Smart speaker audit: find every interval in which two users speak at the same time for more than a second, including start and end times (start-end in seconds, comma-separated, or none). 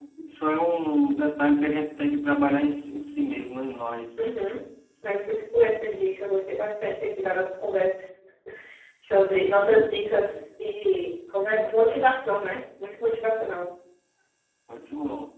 none